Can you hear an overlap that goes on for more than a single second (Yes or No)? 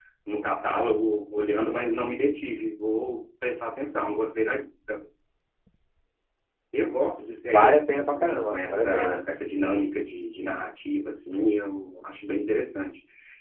Yes